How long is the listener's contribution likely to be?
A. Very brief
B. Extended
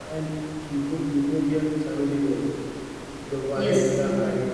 A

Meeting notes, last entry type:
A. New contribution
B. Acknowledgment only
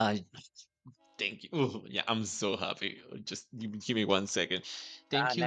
A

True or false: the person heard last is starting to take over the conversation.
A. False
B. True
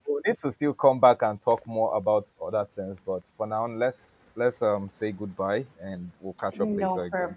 B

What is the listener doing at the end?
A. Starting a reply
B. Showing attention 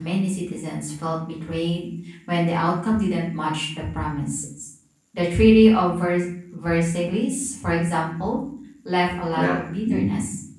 B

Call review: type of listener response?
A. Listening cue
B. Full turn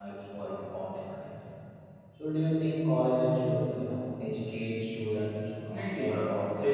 B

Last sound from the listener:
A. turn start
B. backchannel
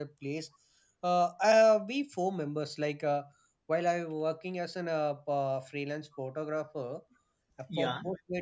B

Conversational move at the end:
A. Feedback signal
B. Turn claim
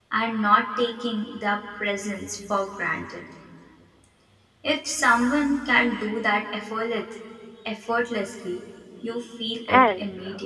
B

